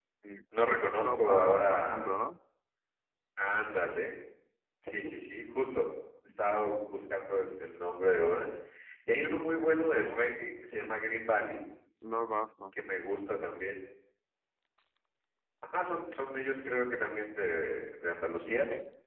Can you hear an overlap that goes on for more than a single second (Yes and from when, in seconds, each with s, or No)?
Yes, from 0.8 s